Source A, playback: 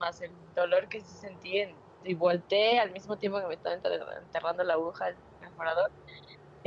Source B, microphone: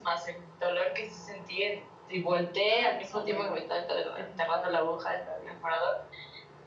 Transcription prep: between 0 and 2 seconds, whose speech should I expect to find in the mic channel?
echo only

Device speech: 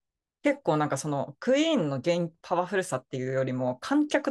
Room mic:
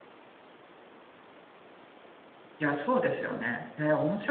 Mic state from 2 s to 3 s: user only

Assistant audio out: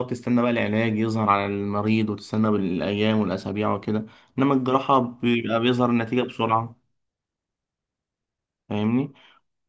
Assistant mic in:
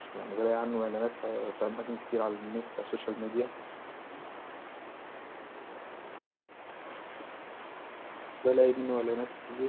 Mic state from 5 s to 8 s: neither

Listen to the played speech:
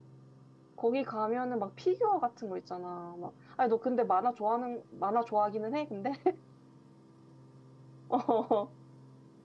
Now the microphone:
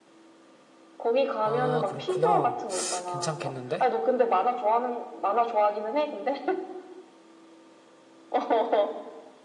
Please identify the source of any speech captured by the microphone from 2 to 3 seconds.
both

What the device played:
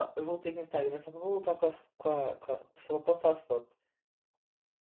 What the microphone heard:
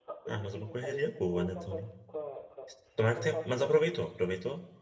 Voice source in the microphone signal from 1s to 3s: both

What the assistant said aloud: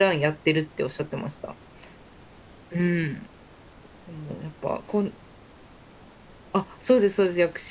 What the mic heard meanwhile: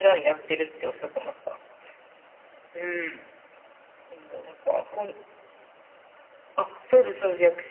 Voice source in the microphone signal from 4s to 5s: echo only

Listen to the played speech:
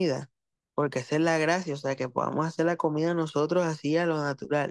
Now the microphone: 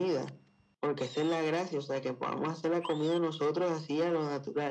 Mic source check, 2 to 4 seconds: echo only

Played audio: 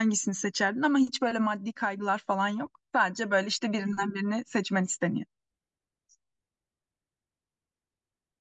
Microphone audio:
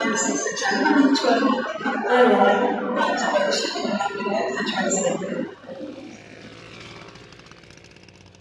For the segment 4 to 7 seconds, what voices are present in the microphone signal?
echo only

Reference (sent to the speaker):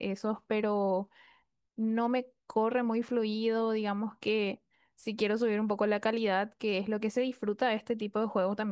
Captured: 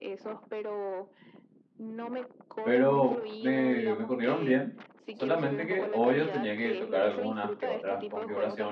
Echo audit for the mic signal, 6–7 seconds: both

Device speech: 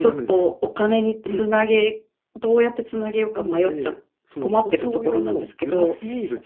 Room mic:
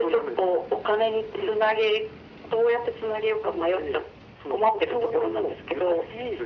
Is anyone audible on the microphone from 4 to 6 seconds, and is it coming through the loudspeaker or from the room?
echo only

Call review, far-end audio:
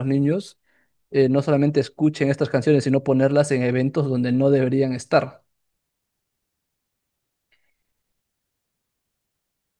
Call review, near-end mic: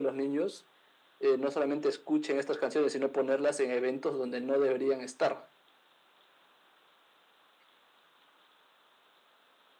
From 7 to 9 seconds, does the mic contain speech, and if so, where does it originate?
neither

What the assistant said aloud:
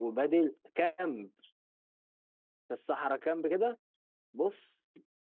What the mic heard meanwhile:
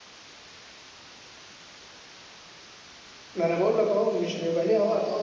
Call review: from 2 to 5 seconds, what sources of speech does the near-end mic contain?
user only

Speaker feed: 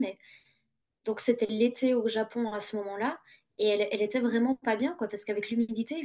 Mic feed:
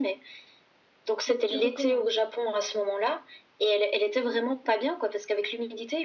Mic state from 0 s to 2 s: both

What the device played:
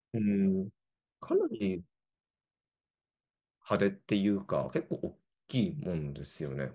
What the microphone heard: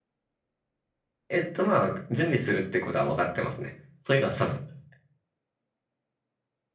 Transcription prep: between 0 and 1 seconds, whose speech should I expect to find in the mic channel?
neither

